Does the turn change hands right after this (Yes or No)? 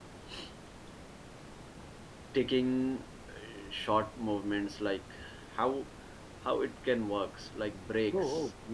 Yes